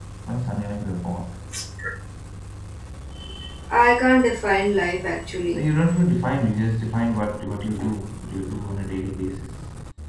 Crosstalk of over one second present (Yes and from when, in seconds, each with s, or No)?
No